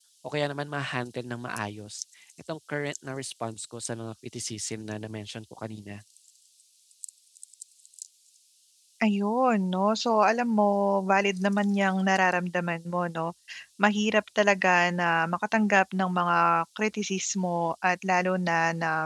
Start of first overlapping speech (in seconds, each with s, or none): none